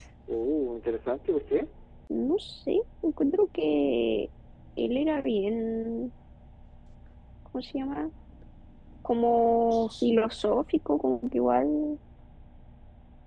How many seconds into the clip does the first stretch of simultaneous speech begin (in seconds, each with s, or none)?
none